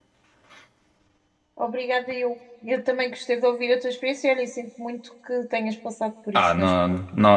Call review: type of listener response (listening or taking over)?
taking over